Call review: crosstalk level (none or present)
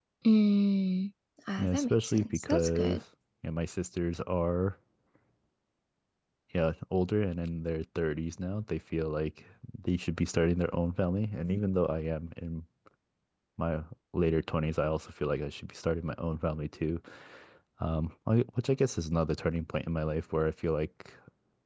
present